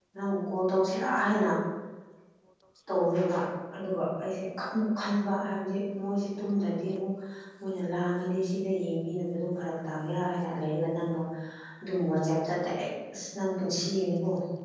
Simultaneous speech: No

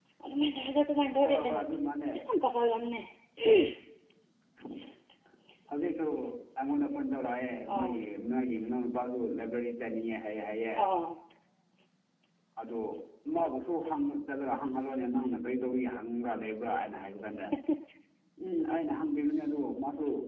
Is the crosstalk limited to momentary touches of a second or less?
Yes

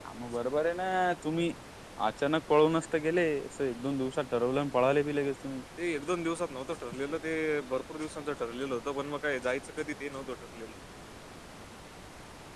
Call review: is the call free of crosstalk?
Yes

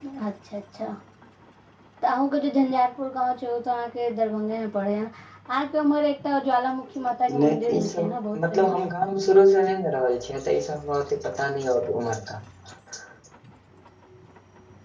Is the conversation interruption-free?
No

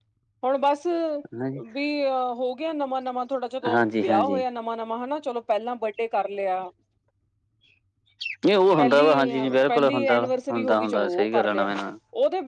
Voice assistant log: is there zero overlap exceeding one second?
No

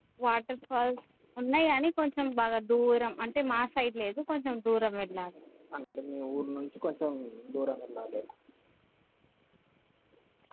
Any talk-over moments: No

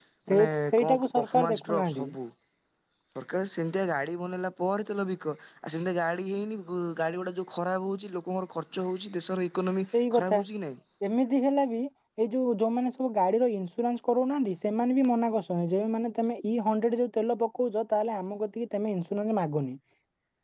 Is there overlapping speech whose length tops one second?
Yes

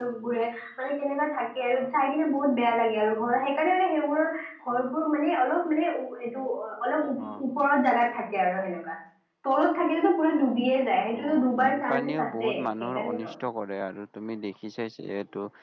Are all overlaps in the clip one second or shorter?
No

